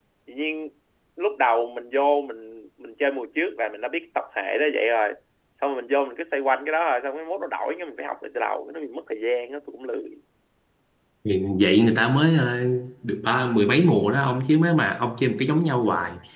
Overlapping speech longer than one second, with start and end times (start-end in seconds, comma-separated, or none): none